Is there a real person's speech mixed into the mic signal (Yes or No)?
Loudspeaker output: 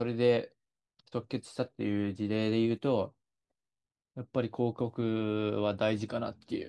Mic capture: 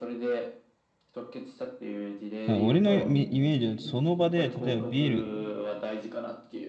Yes